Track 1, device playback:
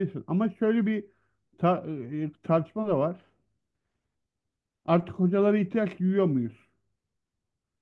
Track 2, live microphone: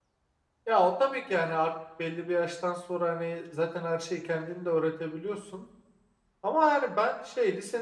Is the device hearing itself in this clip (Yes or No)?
No